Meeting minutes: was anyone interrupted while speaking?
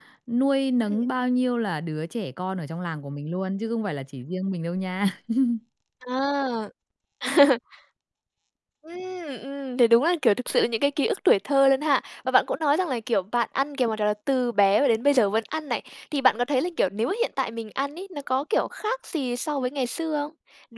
No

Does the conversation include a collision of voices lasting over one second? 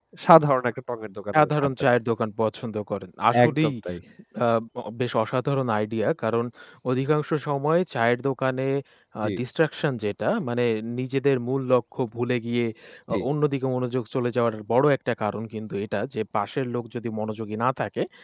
No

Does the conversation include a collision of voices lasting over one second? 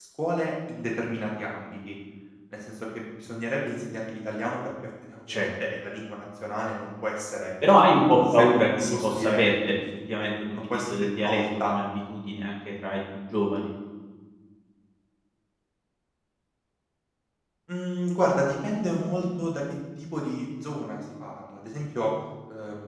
Yes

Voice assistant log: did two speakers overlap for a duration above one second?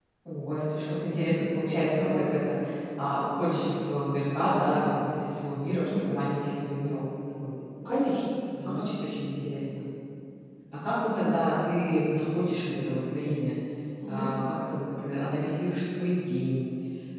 No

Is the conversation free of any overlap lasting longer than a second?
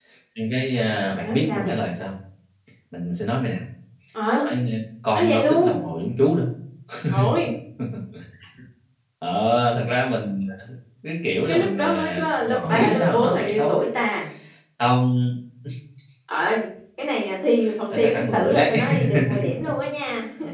No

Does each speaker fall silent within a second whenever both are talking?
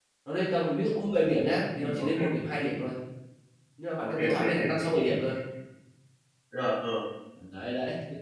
No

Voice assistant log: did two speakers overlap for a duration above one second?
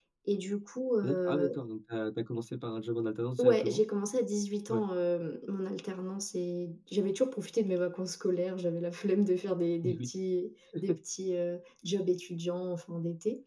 No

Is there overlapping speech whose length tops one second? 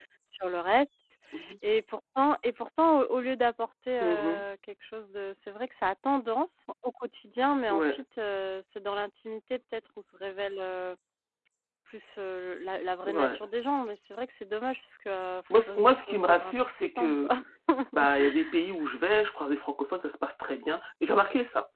Yes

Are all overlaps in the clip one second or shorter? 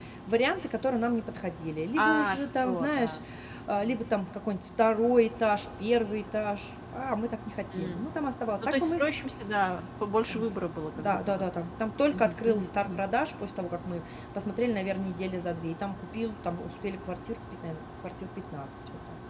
No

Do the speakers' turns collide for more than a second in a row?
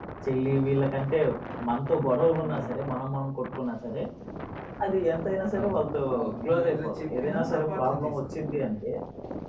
Yes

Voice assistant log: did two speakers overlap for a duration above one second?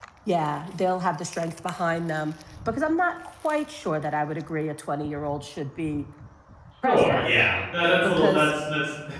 No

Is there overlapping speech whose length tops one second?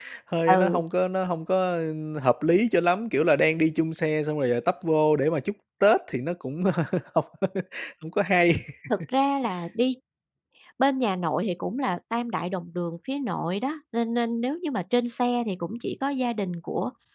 No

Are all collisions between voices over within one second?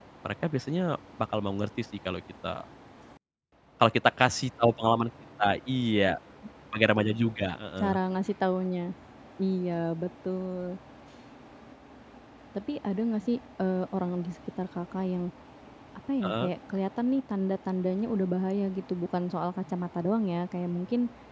Yes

